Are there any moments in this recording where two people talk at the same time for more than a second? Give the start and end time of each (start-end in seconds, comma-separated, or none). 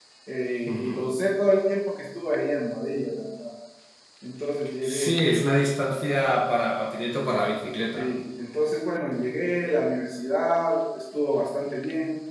none